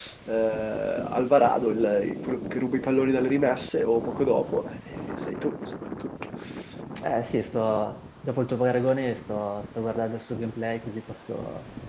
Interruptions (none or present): none